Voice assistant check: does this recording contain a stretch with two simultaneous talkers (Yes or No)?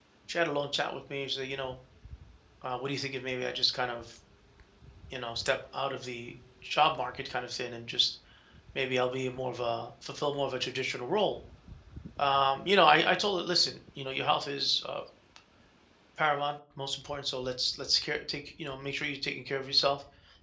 No